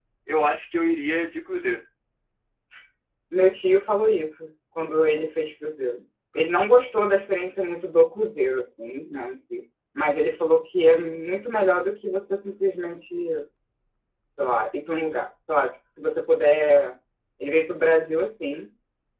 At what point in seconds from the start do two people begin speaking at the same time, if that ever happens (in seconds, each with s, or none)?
none